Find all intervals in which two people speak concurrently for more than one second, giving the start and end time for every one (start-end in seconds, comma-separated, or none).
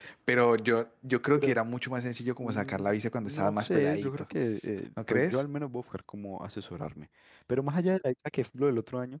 2.4-4.2